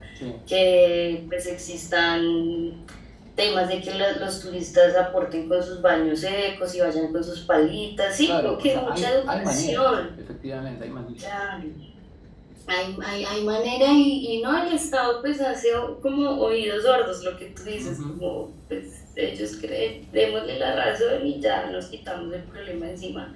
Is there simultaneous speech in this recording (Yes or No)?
Yes